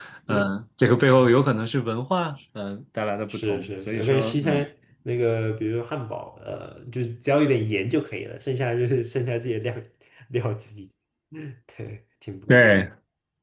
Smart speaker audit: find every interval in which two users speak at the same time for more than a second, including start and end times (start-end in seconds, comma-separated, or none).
3.3-4.6